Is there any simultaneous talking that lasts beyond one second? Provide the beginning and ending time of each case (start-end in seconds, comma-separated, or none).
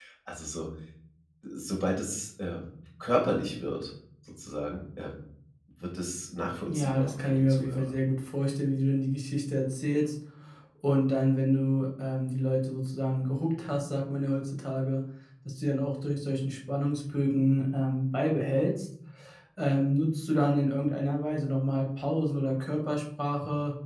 6.7-7.9